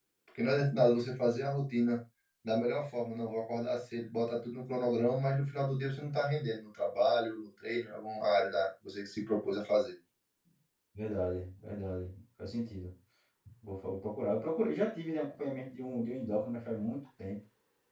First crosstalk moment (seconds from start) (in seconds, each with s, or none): none